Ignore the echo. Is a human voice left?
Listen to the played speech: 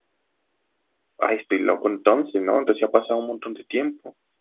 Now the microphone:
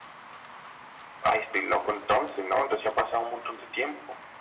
No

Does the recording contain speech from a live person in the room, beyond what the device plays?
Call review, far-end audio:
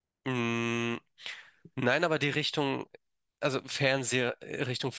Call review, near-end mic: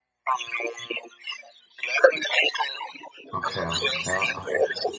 Yes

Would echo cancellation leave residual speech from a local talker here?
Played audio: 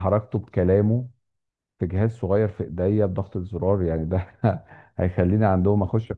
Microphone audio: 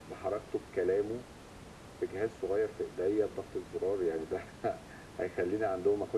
No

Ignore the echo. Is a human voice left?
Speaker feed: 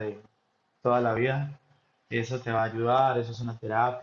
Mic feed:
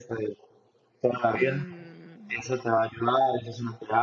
Yes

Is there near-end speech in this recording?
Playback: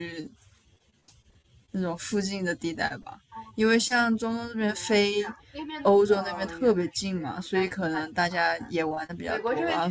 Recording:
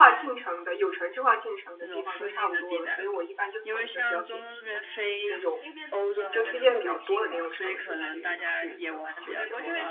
Yes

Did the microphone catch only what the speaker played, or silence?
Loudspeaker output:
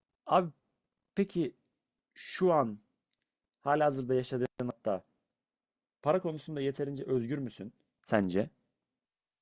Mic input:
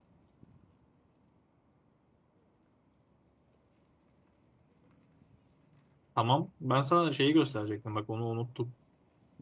No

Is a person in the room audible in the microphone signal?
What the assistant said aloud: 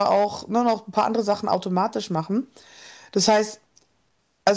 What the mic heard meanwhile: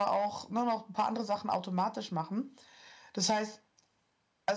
No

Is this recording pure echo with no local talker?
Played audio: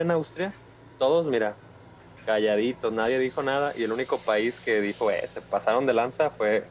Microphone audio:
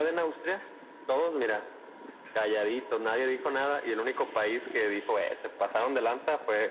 Yes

